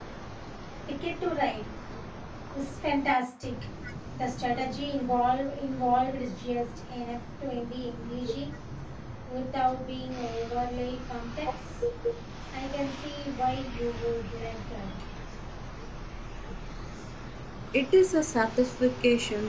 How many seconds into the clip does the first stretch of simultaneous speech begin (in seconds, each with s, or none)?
none